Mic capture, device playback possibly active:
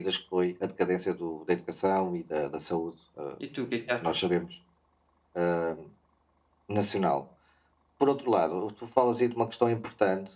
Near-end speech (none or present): present